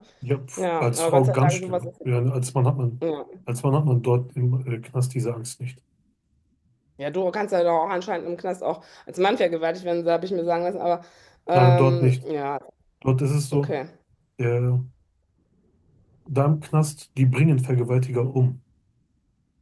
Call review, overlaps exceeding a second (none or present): present